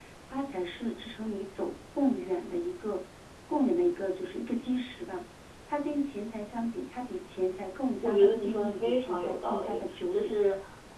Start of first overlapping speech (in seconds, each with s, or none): 8.0 s